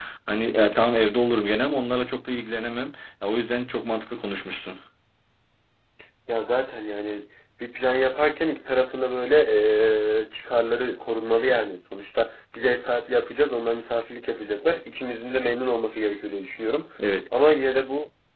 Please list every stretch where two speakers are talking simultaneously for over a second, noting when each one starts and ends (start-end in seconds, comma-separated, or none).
none